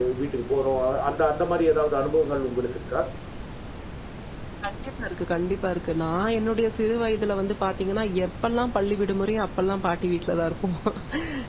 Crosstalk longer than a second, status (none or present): none